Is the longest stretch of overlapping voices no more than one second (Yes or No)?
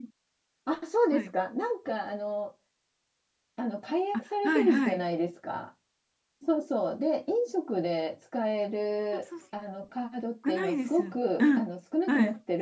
No